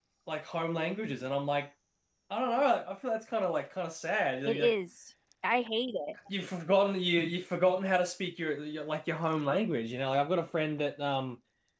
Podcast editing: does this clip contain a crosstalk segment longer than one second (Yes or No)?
No